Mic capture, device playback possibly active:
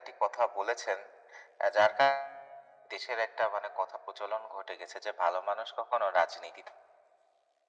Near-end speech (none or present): none